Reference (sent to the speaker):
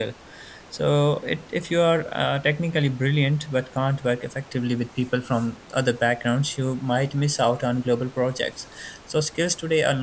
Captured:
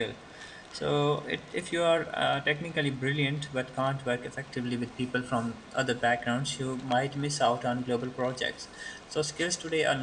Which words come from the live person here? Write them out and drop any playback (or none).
none